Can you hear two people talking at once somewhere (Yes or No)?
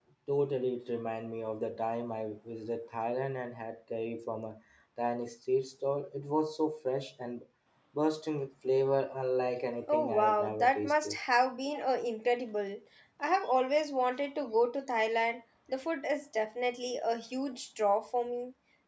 Yes